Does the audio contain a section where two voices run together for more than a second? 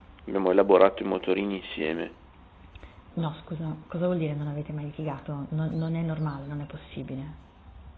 No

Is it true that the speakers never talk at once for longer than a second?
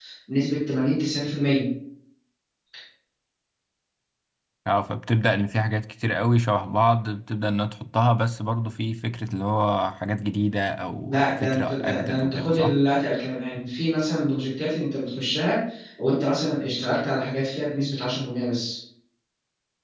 No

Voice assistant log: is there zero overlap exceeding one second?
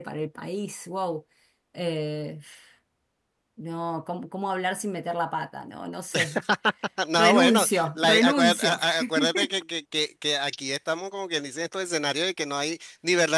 No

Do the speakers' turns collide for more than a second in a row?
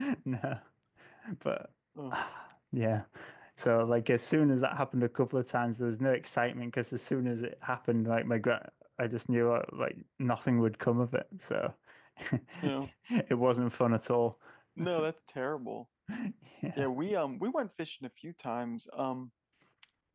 No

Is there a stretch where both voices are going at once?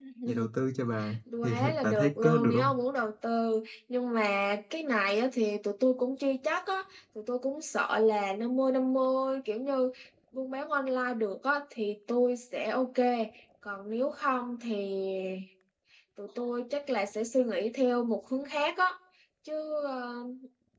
Yes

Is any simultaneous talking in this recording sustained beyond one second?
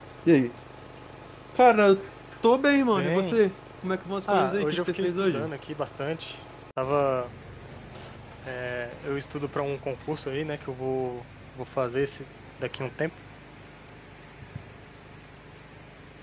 Yes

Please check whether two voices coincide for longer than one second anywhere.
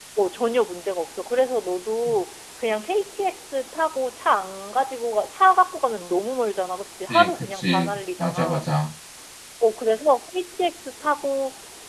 Yes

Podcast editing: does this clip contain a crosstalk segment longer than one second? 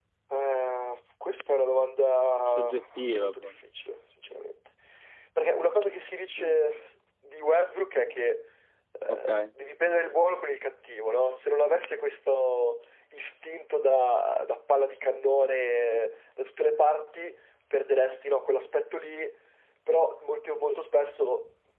No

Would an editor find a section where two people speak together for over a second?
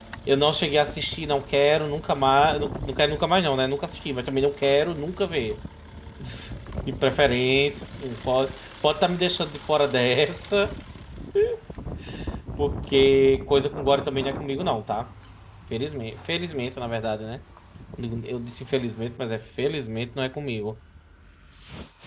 No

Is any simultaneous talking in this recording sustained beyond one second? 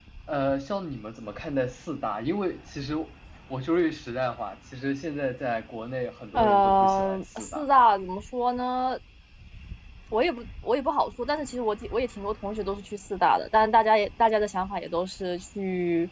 Yes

